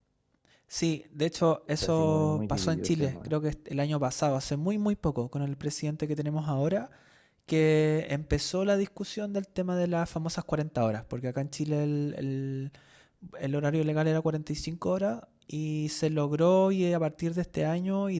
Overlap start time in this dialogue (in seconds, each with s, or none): 1.8 s